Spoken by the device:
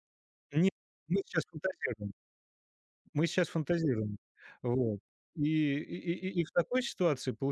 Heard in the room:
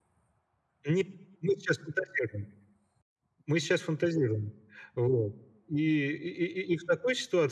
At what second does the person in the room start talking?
none

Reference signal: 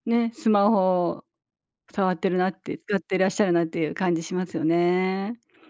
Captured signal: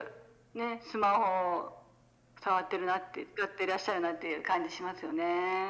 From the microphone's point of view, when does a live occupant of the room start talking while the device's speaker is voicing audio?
none

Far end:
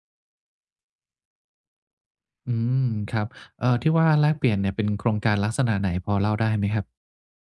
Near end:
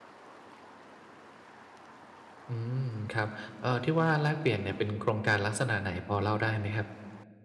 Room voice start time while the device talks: none

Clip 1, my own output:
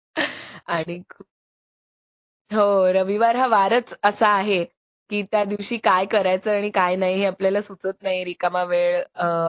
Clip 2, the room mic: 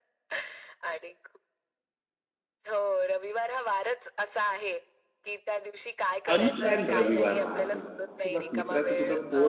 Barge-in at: 6.3 s

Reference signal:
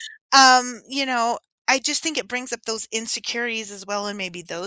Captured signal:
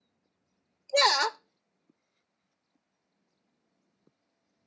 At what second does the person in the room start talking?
0.9 s

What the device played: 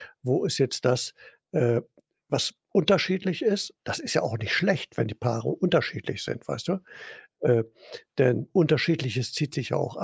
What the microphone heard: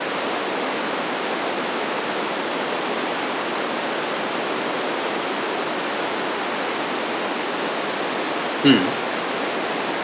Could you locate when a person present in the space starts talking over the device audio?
8.6 s

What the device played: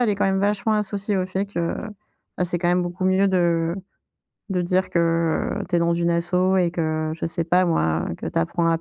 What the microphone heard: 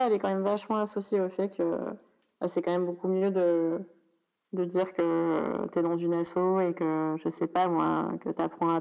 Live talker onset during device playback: none

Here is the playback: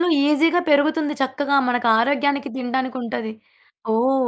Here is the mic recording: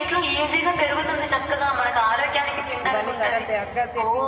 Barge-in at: 2.9 s

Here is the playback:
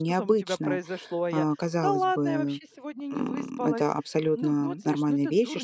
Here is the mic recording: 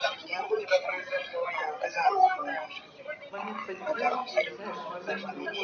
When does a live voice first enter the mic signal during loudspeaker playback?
3.3 s

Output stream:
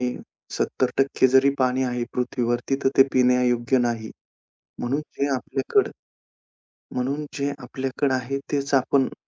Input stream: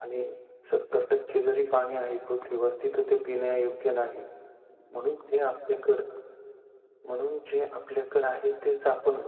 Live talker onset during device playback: none

